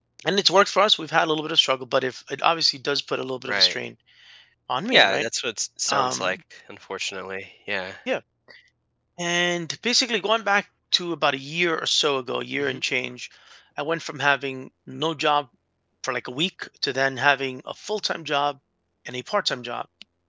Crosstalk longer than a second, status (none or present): none